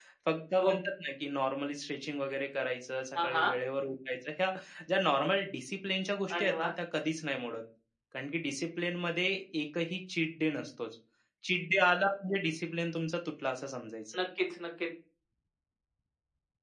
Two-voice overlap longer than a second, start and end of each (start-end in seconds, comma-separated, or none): none